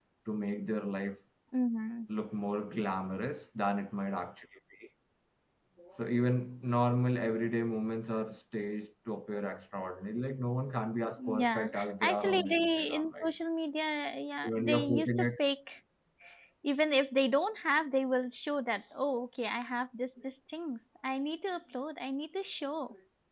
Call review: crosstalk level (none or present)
present